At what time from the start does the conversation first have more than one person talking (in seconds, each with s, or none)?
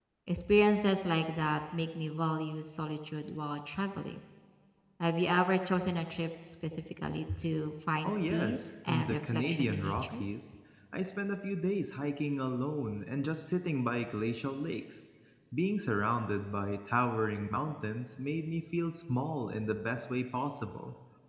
8.0 s